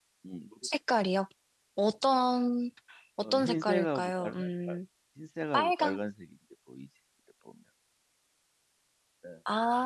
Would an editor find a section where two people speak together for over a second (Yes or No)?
Yes